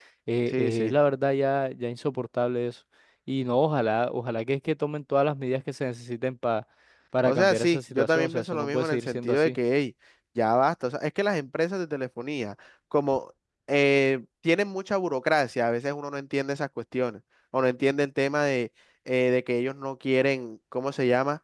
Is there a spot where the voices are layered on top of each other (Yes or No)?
Yes